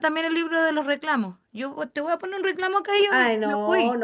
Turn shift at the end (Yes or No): Yes